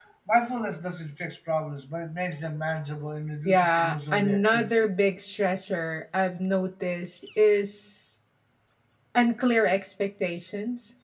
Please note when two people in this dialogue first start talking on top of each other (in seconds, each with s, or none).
3.5 s